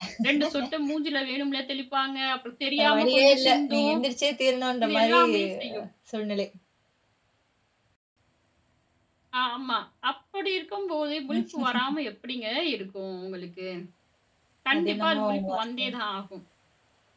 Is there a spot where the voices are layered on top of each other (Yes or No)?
Yes